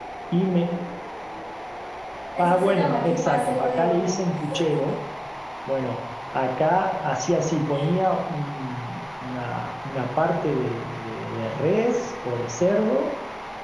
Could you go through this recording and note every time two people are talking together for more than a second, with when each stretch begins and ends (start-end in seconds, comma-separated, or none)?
2.4-4.1